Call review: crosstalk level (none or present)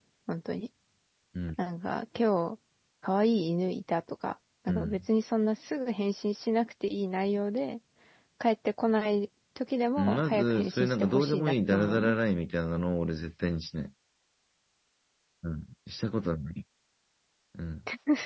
present